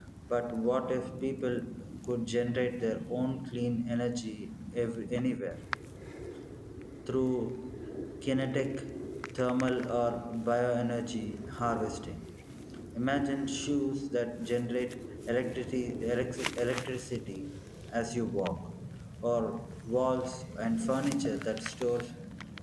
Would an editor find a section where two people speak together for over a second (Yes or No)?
No